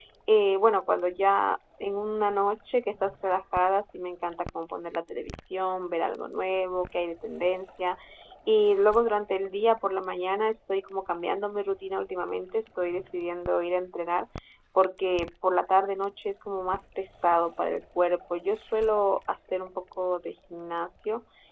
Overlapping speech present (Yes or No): No